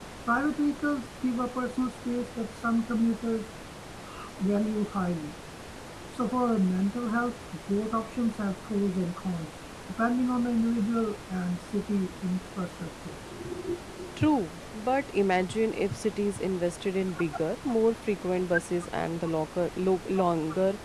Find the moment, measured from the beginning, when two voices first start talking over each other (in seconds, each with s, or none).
none